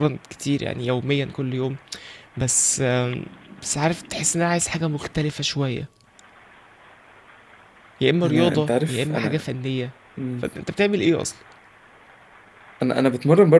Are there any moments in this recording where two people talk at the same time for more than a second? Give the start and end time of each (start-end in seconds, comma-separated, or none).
8.2-9.4